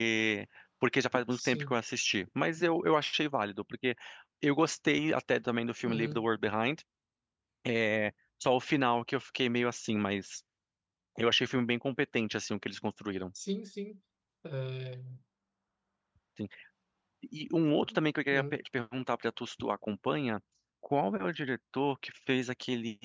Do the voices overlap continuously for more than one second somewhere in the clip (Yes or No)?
No